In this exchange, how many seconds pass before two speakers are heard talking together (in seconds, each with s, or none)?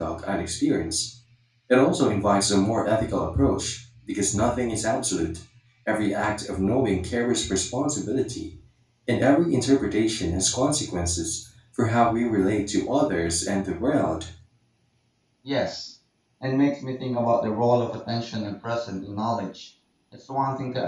none